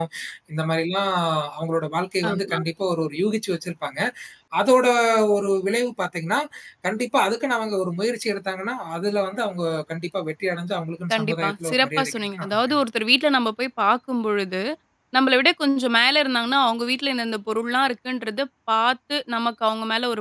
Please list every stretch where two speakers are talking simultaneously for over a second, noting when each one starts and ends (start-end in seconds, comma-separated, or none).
11.1-12.8